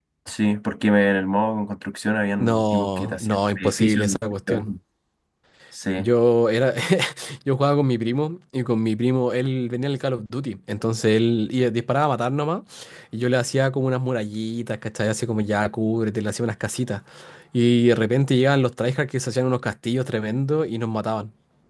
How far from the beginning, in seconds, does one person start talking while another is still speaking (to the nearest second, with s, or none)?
2 s